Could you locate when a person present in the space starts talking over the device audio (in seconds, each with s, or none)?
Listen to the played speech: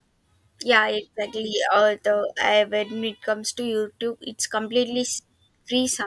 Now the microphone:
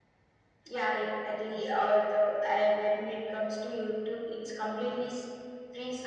none